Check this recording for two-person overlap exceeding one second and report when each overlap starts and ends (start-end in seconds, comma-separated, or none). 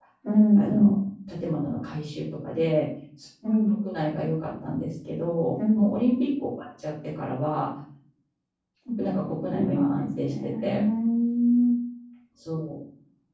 9.5-10.7